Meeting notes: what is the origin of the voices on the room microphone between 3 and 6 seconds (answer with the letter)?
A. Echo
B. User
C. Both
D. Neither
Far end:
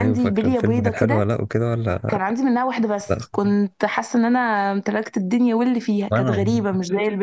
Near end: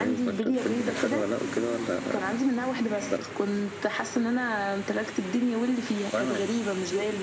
A